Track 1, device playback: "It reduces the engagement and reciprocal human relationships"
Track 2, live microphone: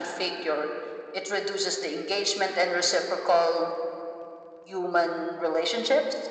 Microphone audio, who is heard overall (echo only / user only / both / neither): echo only